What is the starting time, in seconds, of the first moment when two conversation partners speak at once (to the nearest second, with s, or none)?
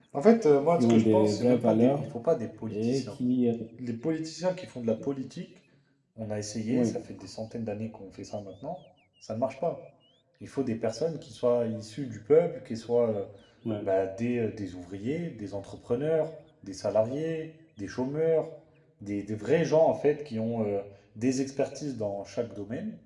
1 s